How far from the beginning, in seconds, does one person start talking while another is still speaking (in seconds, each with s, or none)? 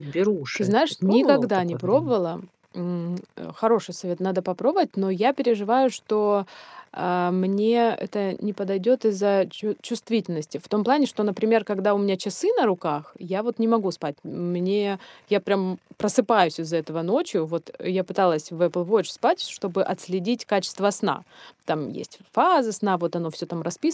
0.6 s